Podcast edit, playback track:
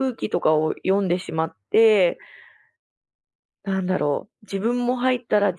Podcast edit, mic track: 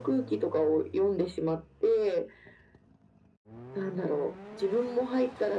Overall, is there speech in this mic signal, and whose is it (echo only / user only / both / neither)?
echo only